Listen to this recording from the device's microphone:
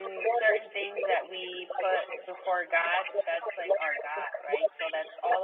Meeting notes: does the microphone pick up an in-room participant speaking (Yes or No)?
Yes